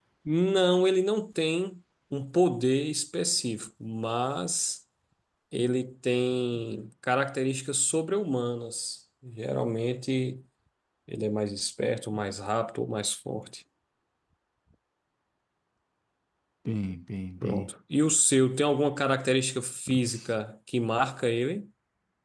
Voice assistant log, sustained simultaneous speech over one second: none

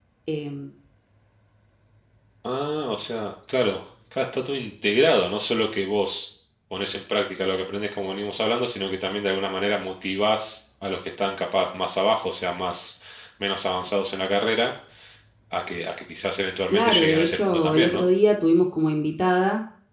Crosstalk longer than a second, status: present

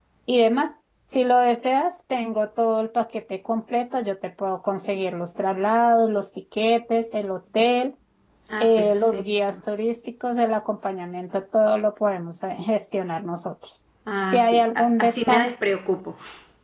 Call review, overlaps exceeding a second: present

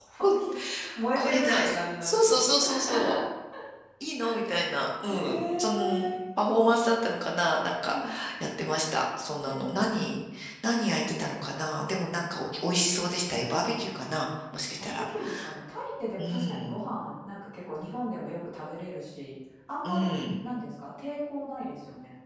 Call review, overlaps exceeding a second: present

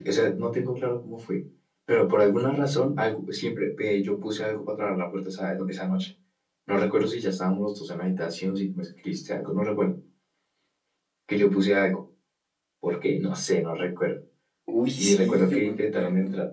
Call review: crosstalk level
present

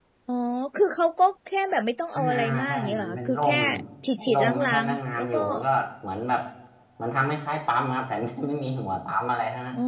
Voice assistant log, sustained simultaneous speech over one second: present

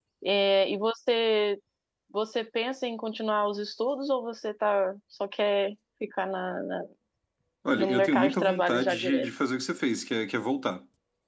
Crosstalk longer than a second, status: present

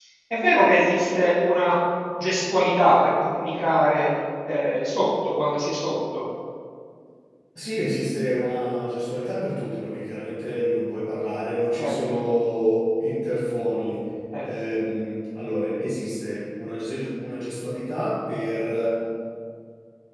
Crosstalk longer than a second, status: none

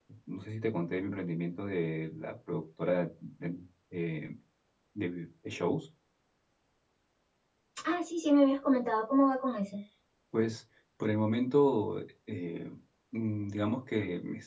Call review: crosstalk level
none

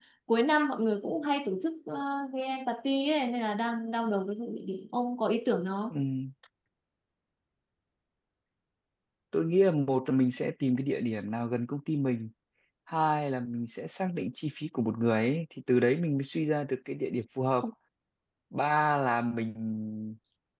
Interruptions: none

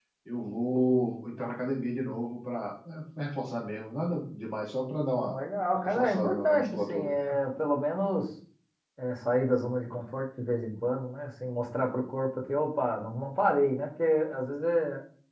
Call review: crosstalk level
present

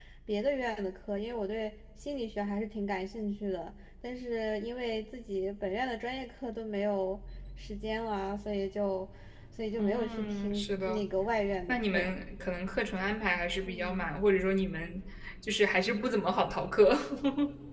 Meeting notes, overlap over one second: present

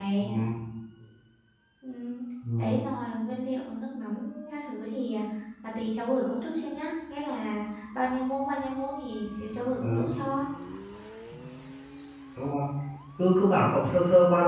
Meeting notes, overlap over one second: none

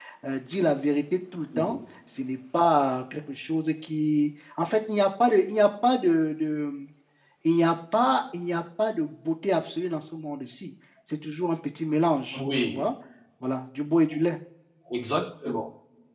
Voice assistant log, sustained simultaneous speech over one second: none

